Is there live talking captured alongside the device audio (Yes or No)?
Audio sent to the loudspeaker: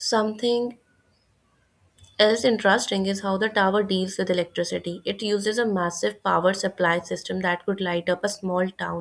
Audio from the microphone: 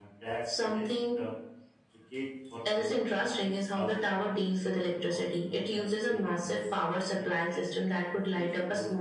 Yes